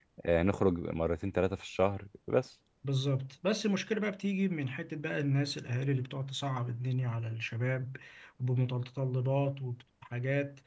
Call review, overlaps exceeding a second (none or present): none